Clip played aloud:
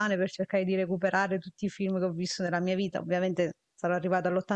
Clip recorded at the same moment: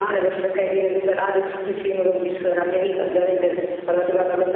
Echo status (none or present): present